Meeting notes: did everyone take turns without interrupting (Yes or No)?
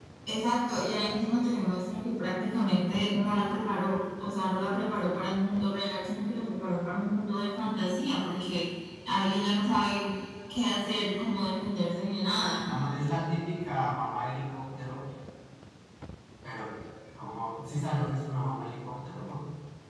Yes